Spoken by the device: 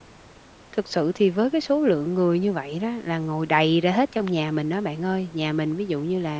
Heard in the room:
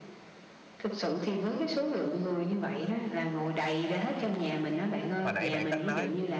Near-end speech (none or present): present